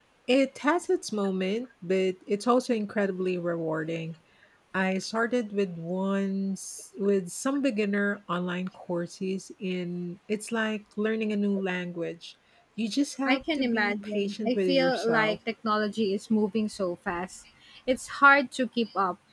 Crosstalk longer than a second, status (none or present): present